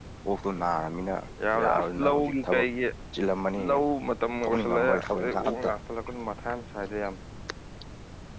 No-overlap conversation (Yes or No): No